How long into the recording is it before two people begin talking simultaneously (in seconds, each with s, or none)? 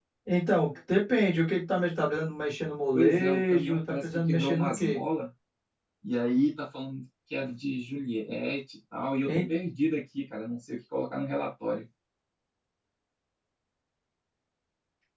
2.9 s